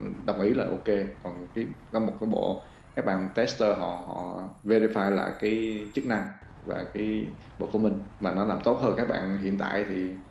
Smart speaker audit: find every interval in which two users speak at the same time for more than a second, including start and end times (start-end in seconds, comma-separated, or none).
none